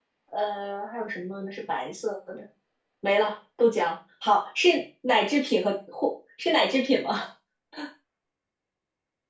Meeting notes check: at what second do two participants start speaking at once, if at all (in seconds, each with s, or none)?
none